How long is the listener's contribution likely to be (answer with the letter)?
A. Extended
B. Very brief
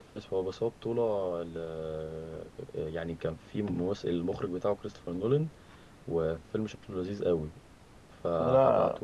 B